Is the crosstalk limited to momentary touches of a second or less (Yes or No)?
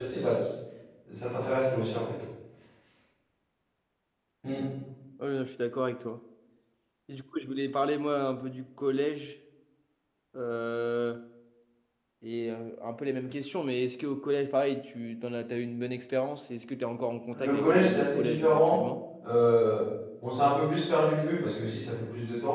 No